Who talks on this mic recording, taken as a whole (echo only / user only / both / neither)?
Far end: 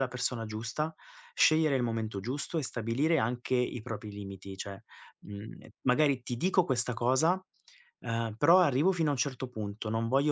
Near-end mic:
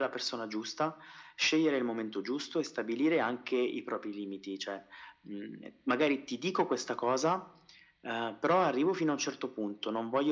echo only